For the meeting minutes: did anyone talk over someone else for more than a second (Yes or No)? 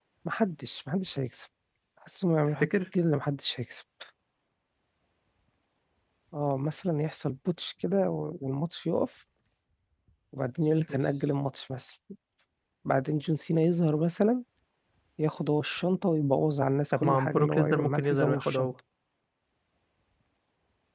Yes